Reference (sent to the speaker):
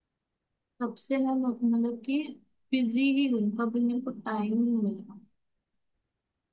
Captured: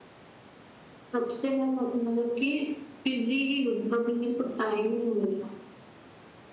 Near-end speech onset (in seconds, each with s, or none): none